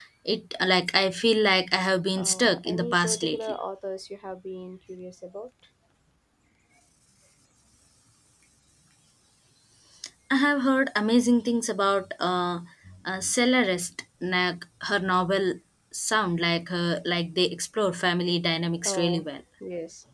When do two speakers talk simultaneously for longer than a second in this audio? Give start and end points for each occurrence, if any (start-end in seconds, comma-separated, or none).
2.2-3.6